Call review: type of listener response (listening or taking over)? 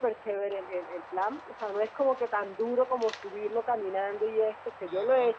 listening